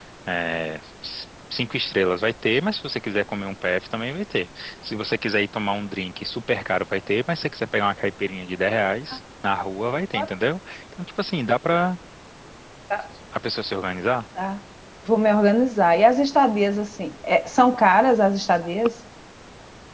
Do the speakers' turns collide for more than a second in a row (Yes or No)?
No